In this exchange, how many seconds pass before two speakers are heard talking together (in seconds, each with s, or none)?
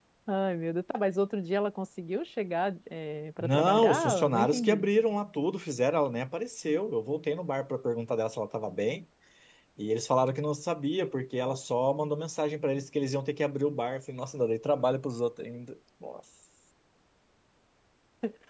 3.4 s